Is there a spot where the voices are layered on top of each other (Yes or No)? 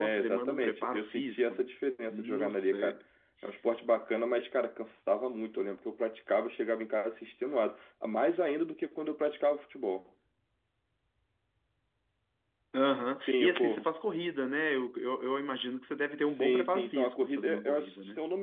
Yes